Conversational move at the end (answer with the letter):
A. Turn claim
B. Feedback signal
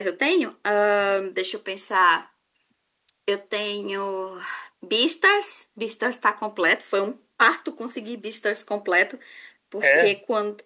B